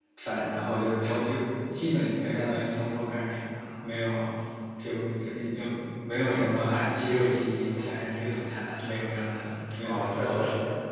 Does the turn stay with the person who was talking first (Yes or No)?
No